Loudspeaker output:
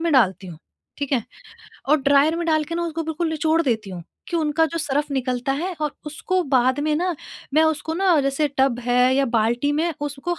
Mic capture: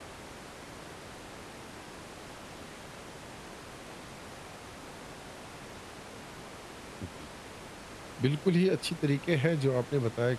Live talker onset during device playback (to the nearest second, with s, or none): 7 s